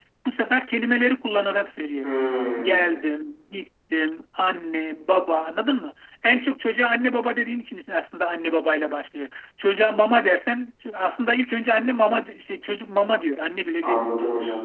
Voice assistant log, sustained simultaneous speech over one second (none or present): none